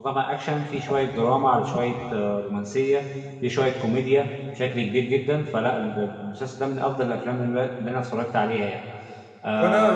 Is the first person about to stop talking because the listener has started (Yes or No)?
Yes